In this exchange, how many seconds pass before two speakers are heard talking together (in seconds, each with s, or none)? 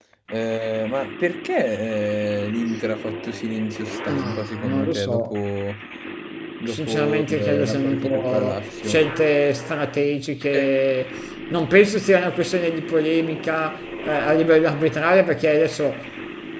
4.1 s